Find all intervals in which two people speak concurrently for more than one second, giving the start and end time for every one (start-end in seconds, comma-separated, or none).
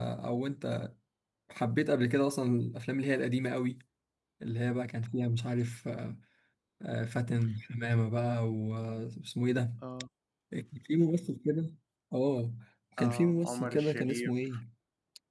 13.0-14.3